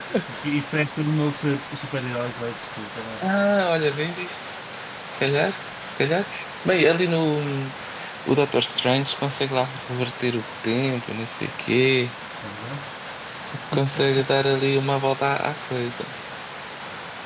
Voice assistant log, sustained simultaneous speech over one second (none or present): none